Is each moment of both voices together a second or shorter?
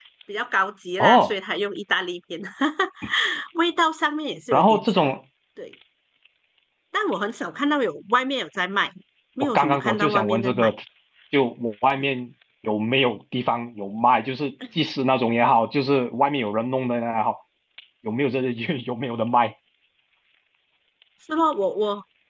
No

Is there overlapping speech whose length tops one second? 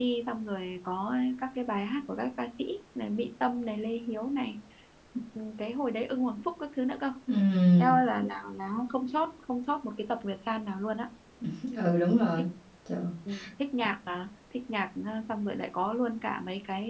No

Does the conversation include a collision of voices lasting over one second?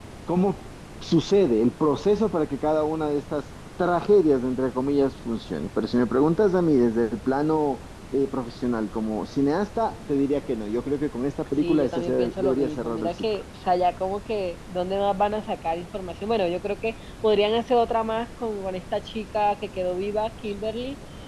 Yes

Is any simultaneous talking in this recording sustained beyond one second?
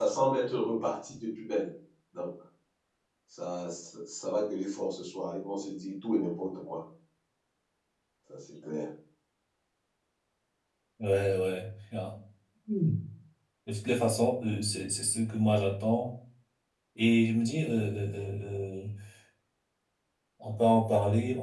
No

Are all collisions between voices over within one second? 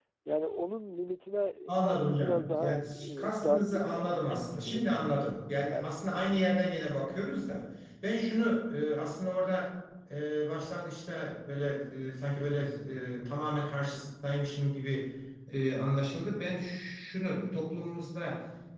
No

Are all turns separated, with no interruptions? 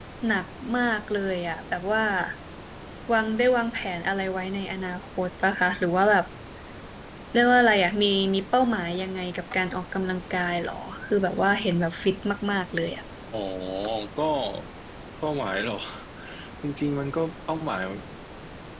Yes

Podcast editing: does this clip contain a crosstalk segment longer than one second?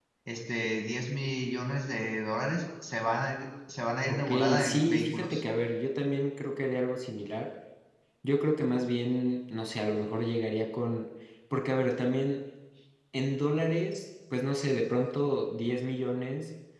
Yes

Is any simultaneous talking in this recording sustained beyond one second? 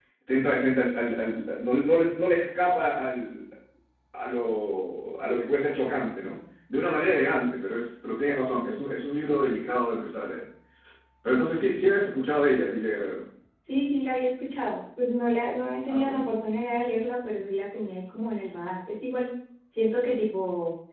No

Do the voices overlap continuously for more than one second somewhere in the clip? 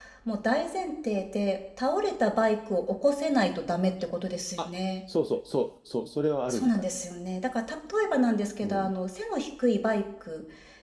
No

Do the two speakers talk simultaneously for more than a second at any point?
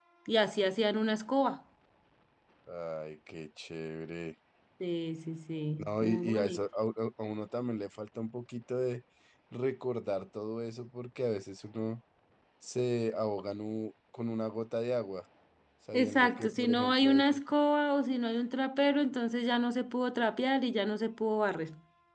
Yes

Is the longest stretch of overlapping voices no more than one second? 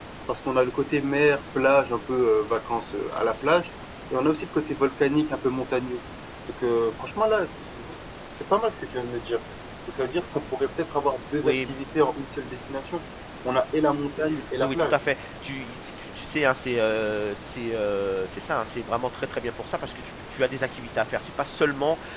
Yes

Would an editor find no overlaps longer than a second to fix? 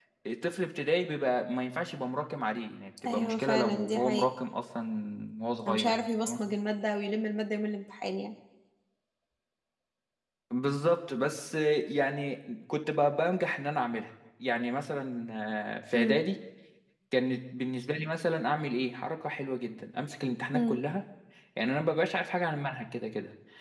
No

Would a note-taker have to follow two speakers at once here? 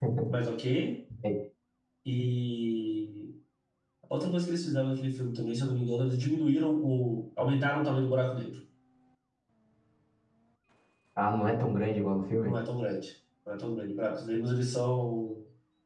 No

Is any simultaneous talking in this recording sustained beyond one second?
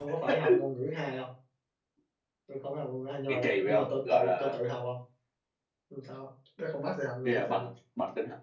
Yes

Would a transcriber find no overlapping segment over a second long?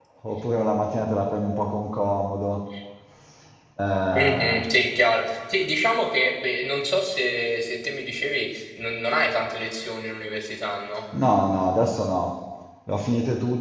Yes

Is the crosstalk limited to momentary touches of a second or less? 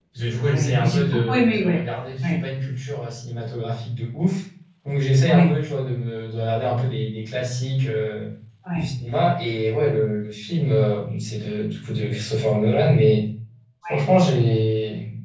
No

